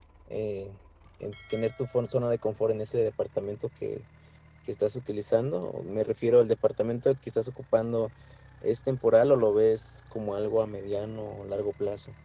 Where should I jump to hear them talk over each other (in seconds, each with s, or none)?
none